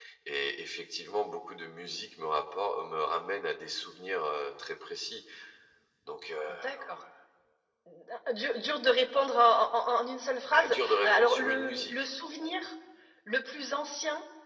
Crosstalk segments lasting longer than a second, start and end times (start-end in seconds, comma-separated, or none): 10.6-11.9